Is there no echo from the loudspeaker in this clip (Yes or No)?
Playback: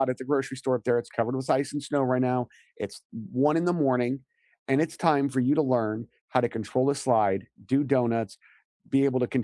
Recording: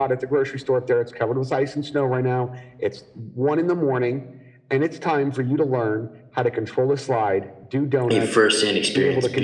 No